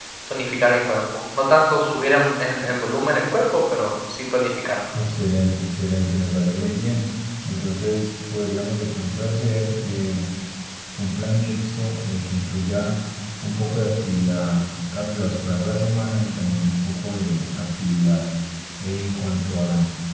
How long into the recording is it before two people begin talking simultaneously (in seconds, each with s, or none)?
none